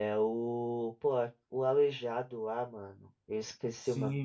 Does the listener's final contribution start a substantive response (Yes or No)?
Yes